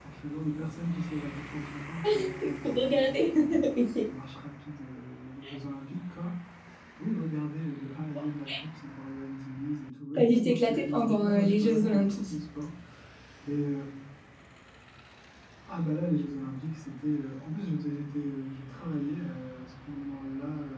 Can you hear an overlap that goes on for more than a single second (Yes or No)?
Yes